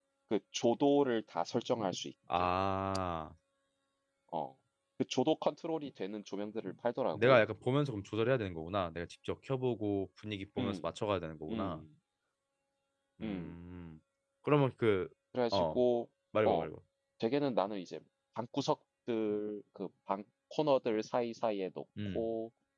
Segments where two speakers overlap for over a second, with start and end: none

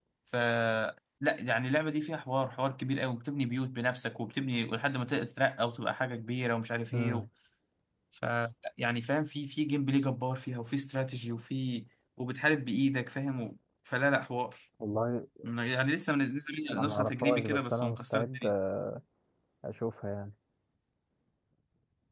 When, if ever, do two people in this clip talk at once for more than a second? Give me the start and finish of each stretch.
16.7-18.4

